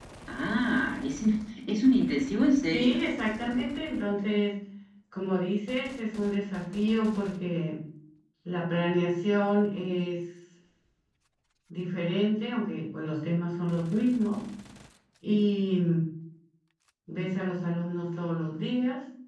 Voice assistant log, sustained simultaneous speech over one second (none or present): none